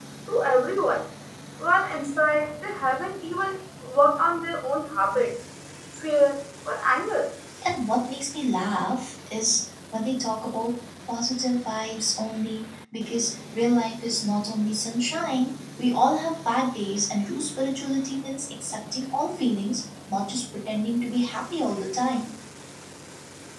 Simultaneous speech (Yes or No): No